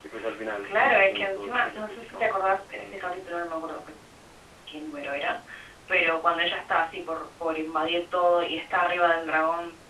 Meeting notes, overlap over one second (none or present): present